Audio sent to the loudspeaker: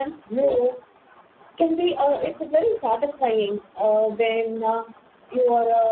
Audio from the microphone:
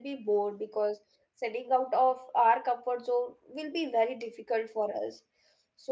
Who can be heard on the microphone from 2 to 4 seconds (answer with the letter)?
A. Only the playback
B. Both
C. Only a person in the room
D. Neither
C